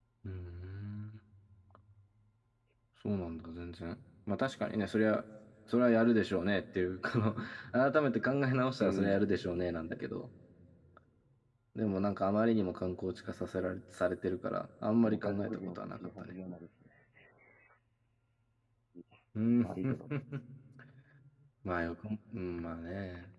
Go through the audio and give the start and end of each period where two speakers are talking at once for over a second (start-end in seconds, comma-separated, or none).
14.8-16.3